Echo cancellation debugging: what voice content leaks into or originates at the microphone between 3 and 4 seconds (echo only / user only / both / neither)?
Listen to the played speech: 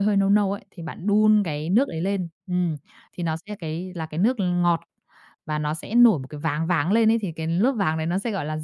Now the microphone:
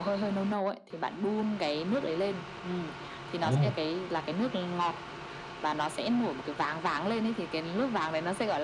both